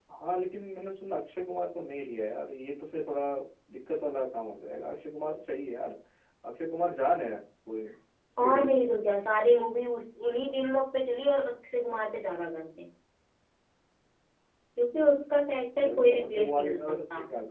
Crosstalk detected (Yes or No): Yes